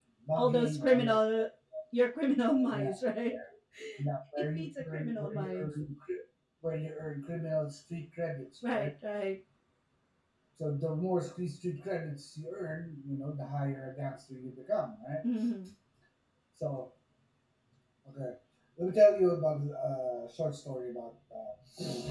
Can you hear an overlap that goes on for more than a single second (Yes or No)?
Yes